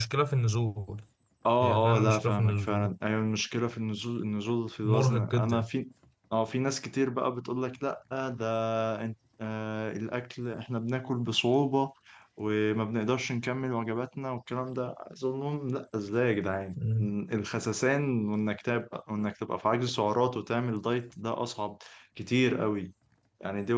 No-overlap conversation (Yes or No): No